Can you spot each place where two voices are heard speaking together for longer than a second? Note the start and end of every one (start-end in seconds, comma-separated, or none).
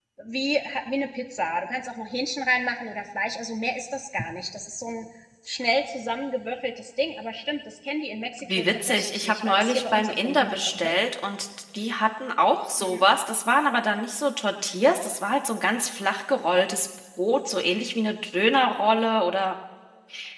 8.6-10.9